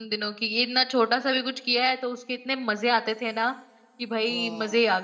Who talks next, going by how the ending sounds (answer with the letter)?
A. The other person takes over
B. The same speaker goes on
B